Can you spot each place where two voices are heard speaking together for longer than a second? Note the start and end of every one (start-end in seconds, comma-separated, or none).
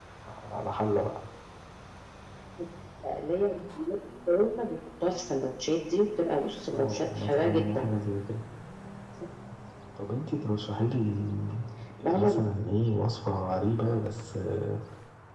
6.7-7.9